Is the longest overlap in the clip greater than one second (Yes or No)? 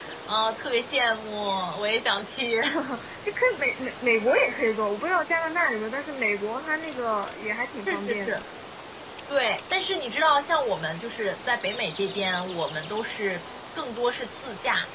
No